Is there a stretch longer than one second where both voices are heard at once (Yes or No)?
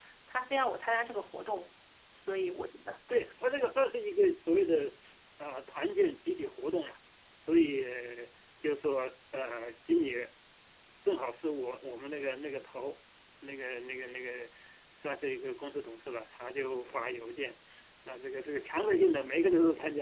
No